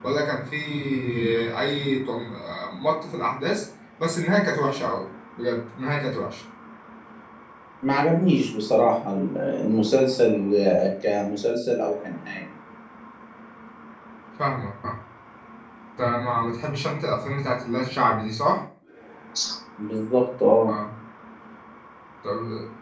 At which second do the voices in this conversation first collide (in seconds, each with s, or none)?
none